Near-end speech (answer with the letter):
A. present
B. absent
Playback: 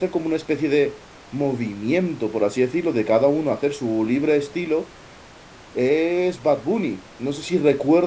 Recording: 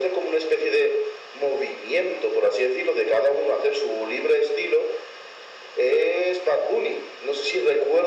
B